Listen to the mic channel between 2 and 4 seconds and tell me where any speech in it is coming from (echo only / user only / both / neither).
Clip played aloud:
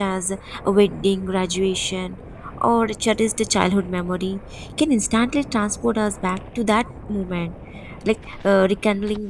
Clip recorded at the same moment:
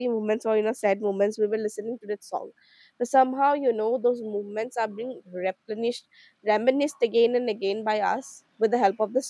user only